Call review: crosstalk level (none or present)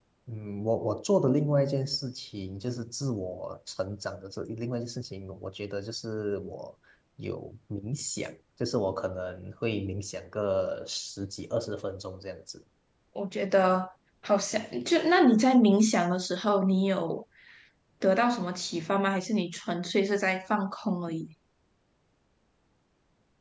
none